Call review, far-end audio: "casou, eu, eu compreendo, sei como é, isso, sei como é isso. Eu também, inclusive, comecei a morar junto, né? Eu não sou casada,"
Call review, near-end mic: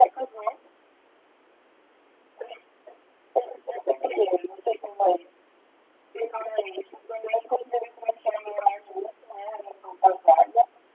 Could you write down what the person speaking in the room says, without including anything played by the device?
none

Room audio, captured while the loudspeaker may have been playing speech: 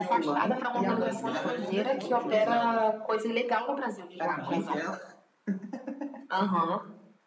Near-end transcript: é uma das mais utilizadas.

